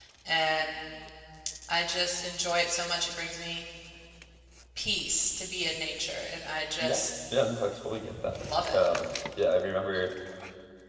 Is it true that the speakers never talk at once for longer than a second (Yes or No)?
Yes